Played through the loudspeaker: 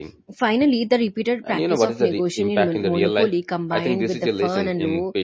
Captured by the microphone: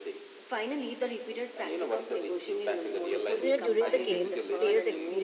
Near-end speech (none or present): present